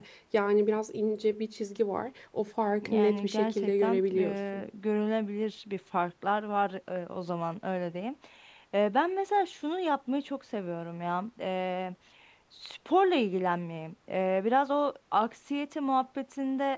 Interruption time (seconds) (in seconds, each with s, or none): 2.8 s